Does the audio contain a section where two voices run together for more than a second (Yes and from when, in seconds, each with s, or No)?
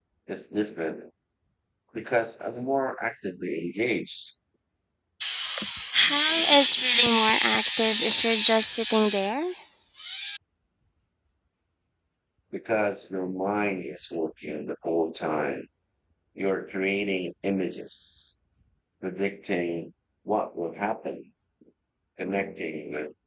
No